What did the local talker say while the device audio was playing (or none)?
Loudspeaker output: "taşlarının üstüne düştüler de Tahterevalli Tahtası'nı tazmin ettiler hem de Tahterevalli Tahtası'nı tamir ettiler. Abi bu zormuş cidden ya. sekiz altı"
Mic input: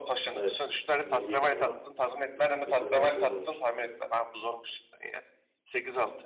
Evet. Yine iyiydin ama sekiz altı öne geçtin.